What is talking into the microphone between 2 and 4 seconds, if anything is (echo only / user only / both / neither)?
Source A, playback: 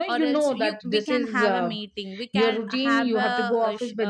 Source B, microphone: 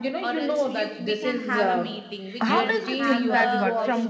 both